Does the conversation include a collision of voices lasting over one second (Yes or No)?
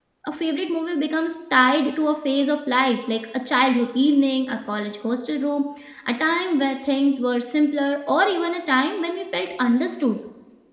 No